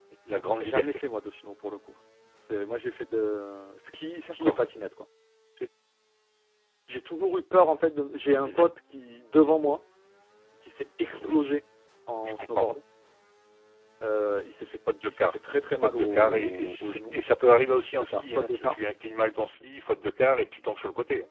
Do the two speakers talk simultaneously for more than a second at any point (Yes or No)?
Yes